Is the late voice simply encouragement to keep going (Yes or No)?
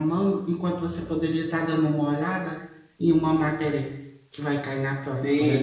No